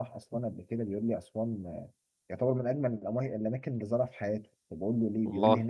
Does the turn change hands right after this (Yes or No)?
No